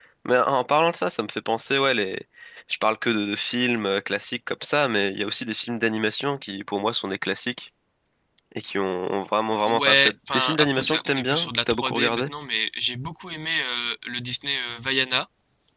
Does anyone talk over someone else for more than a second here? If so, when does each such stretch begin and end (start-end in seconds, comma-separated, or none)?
9.7-12.3